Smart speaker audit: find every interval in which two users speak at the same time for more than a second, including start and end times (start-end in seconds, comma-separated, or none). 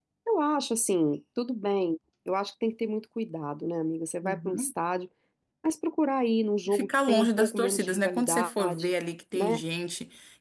6.7-8.9